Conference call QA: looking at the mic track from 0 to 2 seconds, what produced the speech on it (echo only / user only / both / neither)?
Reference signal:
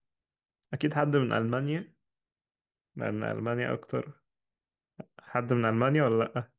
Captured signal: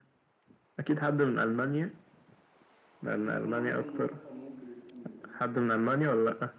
echo only